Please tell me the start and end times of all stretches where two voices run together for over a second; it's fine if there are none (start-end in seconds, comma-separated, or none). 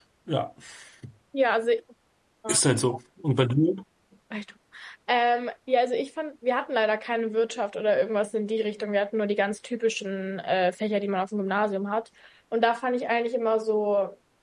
none